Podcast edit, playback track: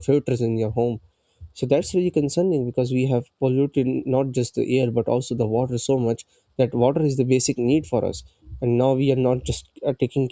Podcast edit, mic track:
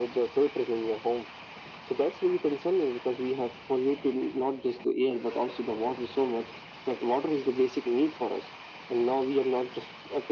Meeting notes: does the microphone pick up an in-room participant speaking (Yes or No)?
No